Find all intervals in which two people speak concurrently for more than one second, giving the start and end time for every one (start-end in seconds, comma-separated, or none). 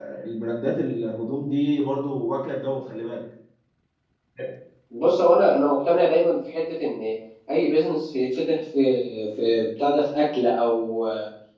none